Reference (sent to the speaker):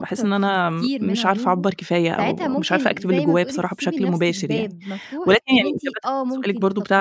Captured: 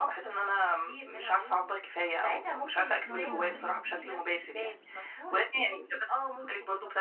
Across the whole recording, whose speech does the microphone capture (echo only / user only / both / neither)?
both